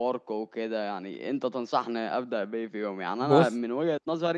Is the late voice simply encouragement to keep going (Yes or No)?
Yes